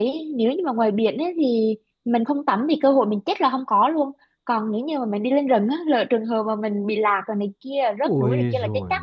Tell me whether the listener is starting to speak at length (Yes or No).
Yes